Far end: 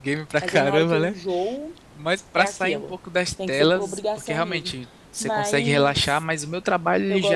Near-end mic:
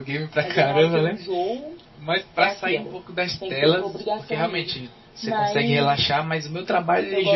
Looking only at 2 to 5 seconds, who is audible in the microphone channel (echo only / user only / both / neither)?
echo only